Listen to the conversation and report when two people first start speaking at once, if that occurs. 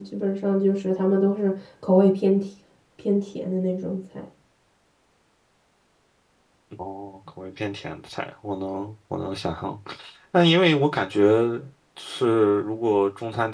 none

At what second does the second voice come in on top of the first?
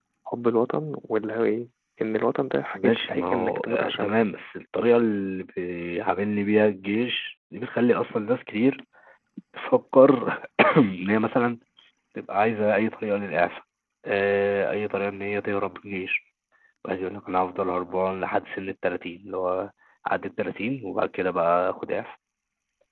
3 s

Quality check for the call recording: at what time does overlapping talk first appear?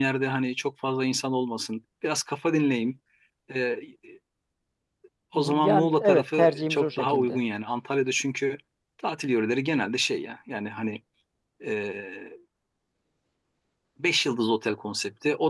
5 s

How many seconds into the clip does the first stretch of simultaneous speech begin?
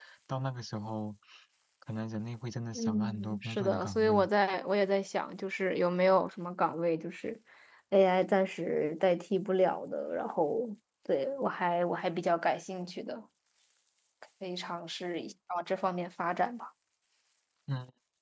3 s

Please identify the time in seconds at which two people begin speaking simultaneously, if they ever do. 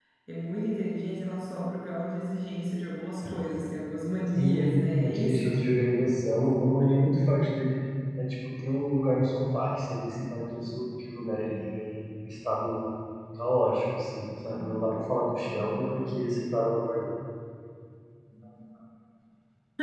4 s

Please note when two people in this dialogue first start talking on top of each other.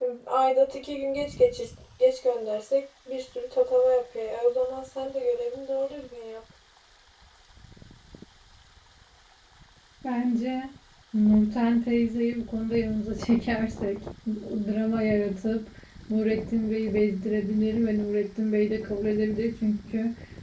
none

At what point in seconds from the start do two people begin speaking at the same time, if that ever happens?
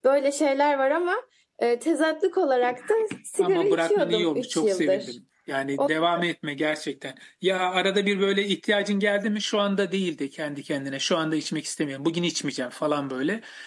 3 s

